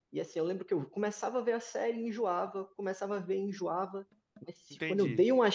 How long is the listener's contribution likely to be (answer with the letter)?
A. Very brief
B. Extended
A